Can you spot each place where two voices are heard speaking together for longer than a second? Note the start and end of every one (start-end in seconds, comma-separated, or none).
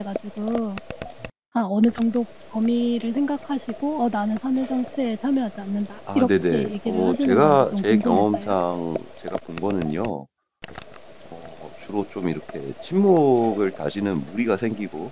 6.2-8.5